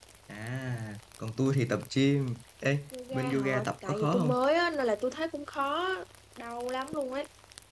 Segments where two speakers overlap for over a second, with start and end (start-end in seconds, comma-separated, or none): 3.1-4.4